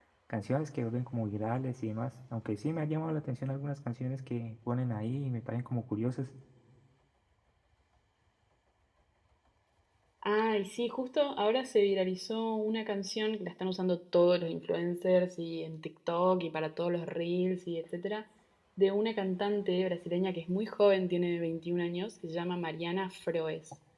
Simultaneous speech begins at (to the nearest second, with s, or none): none